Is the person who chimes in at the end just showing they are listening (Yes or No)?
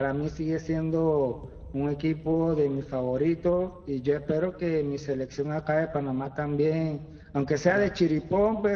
Yes